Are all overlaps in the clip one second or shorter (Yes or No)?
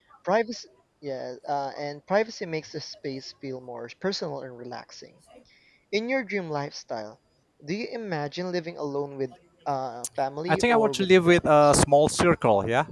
No